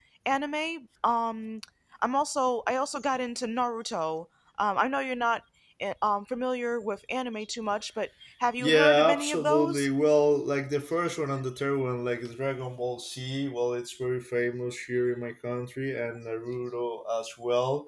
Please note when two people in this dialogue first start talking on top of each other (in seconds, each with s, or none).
8.6 s